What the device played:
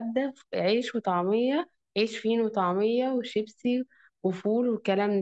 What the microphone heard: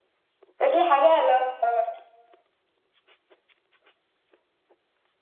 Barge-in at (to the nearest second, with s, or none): 1 s